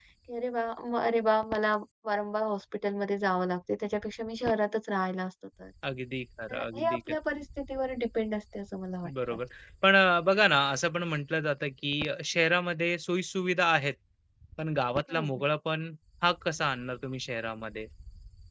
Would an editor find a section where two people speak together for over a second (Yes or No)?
No